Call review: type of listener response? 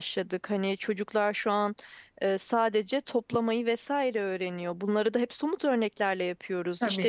listening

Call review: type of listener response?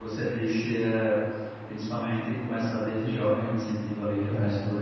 listening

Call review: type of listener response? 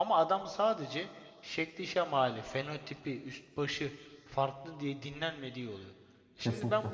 listening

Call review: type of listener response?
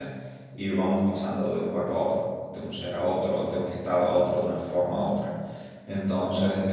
taking over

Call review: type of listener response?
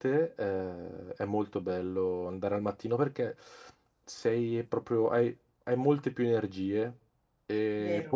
listening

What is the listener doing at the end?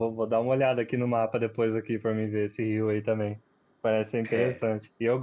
listening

